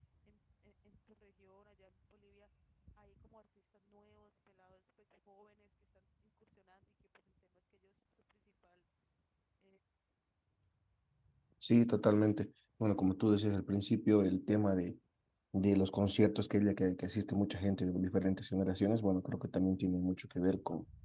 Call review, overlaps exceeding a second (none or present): none